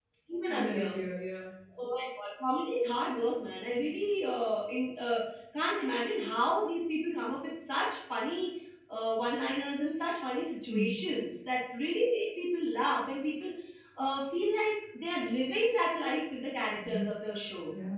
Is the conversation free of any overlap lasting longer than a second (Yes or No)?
Yes